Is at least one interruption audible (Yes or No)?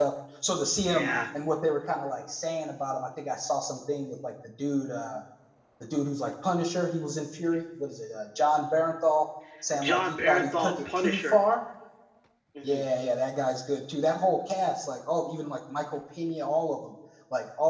Yes